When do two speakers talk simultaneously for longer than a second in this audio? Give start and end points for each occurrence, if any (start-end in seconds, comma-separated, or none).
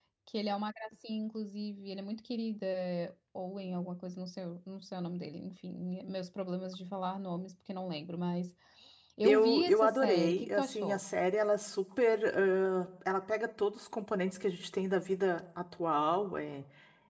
9.2-11.0